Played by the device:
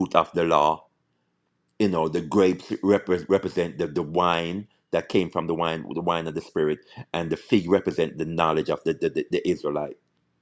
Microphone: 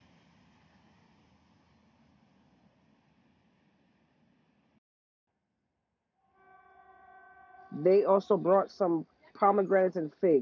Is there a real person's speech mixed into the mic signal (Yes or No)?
Yes